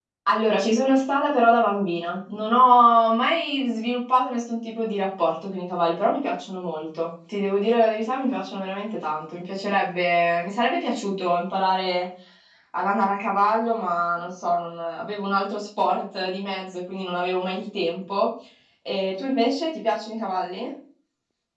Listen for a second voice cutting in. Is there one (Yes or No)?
No